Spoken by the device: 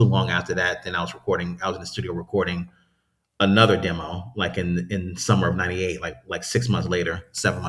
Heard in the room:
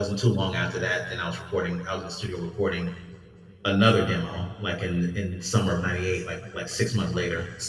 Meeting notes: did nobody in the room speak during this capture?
Yes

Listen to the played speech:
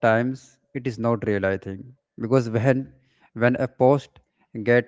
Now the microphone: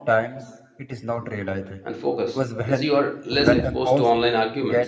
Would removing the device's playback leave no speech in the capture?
No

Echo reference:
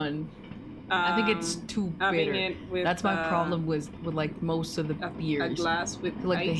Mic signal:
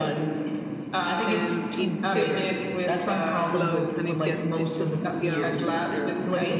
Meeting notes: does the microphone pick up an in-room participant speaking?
Yes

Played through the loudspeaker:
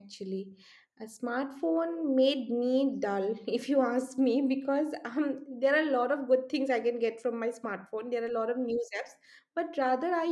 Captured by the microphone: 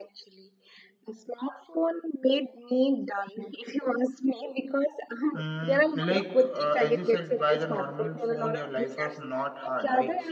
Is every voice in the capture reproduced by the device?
No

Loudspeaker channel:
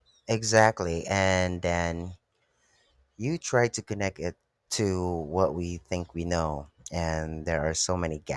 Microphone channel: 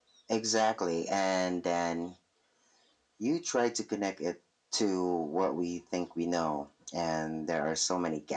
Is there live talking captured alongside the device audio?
No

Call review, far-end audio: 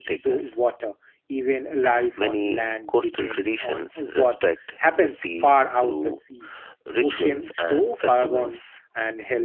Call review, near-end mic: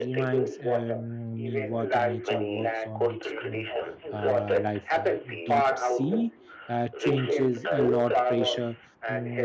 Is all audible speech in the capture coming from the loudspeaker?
No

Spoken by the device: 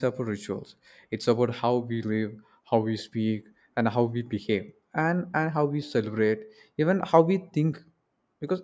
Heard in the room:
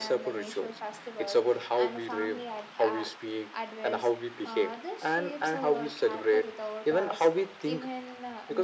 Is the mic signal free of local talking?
No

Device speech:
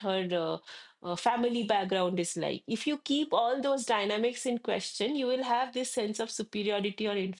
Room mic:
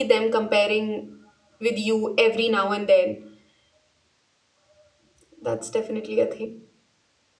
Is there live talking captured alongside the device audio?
Yes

